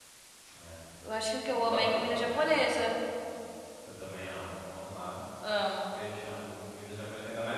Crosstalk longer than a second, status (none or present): present